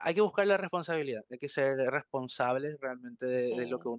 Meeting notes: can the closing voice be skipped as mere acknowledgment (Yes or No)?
No